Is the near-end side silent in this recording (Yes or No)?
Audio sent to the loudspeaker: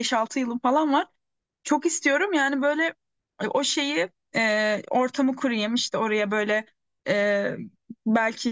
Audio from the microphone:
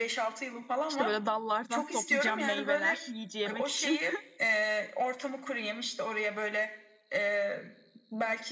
No